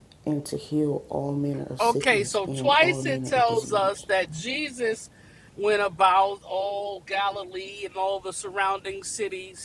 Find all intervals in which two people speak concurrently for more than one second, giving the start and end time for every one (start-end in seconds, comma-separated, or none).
1.8-4.0